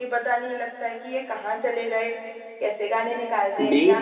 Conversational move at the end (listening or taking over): taking over